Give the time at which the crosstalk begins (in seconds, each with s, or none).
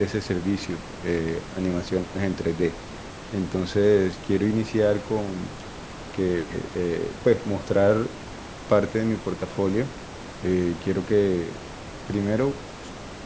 none